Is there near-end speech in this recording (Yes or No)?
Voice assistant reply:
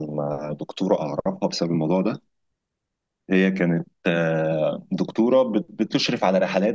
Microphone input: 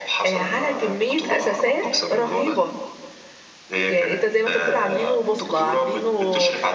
Yes